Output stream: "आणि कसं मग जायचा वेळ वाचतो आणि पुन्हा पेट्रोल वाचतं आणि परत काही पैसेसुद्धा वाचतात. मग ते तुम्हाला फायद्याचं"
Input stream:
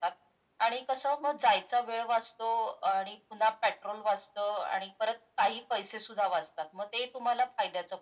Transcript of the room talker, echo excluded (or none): none